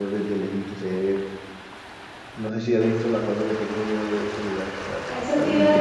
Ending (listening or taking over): taking over